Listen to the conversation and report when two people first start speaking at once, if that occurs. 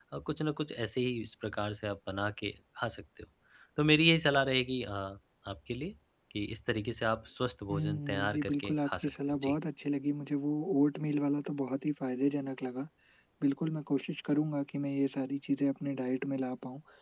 7.7 s

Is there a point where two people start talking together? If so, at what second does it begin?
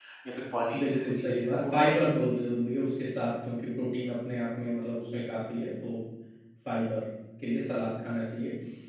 0.7 s

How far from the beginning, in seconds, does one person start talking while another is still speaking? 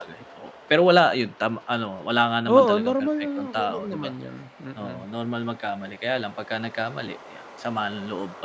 2.5 s

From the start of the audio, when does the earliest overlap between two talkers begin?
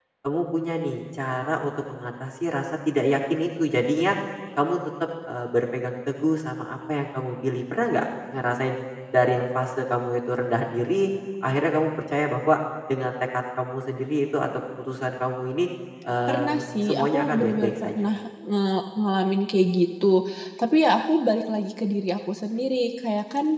16.3 s

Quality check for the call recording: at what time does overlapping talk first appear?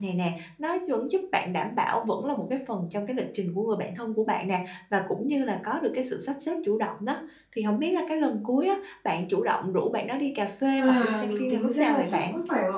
10.8 s

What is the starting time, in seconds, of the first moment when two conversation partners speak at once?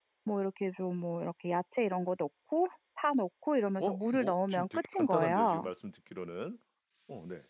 3.8 s

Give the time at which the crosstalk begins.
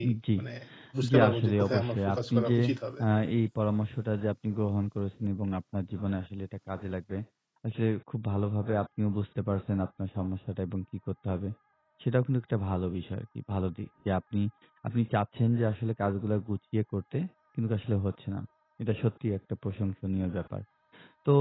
1.1 s

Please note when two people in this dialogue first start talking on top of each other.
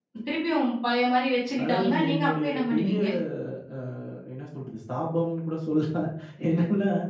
1.6 s

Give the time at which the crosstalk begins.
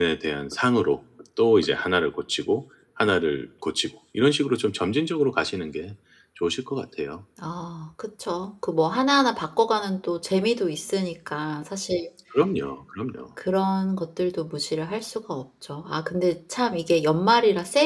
none

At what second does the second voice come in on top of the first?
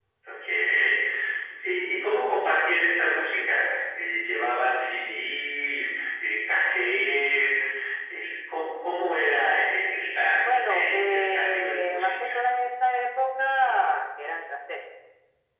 10.4 s

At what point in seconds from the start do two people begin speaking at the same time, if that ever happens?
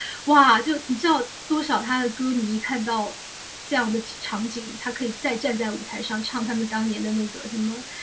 none

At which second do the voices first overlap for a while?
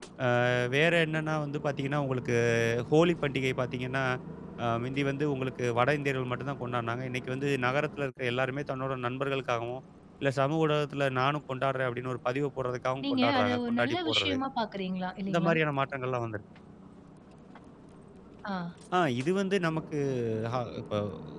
13.1 s

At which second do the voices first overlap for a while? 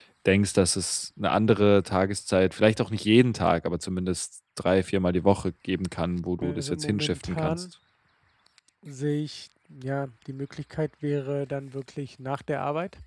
6.4 s

